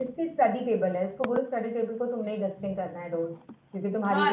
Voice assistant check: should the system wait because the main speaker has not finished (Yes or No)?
No